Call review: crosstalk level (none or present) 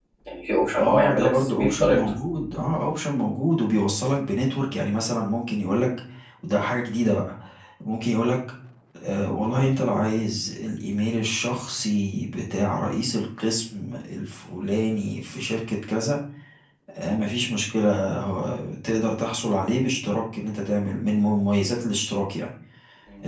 present